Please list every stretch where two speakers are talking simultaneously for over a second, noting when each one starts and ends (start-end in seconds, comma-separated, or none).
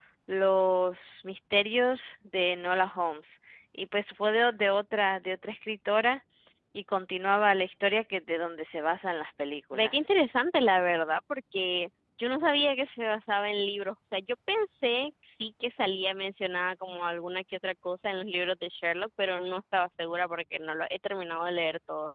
none